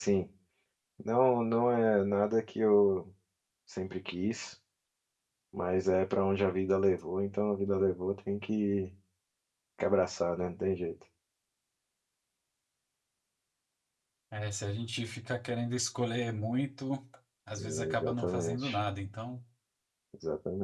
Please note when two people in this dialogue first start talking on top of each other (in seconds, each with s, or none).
17.6 s